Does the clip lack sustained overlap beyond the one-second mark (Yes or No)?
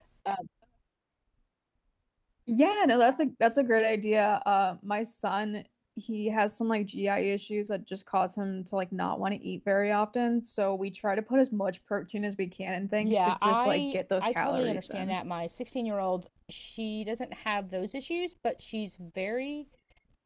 No